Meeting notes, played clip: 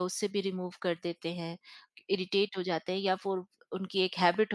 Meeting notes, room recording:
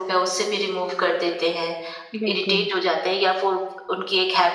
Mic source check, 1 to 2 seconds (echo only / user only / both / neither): echo only